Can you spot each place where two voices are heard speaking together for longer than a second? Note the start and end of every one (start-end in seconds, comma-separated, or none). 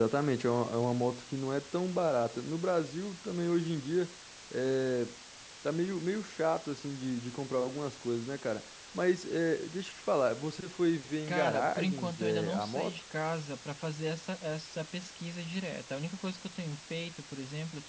11.3-13.0